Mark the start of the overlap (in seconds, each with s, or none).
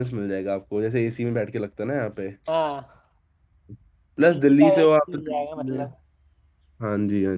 4.3 s